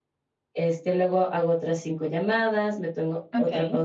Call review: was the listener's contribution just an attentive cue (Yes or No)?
No